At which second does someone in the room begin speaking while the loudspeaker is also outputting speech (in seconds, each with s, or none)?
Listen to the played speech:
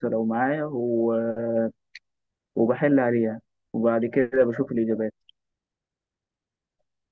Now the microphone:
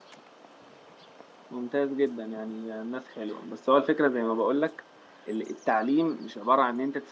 1.5 s